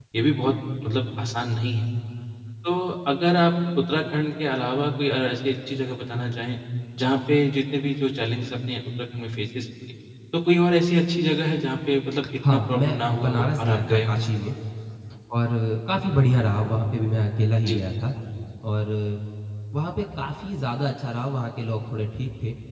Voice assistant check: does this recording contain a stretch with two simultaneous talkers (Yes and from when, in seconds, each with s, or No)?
Yes, from 12.4 s